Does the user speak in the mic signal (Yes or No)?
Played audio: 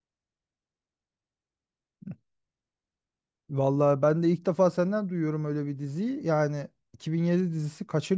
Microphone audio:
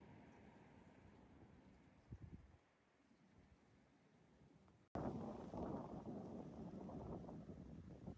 No